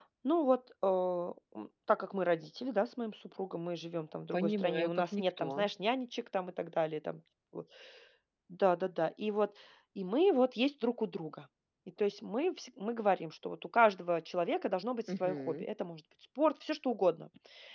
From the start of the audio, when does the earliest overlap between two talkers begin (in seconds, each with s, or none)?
4.3 s